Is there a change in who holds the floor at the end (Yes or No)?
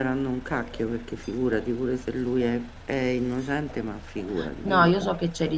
Yes